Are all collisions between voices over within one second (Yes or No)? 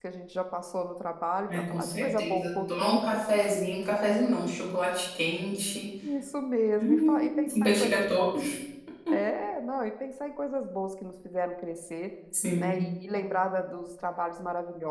No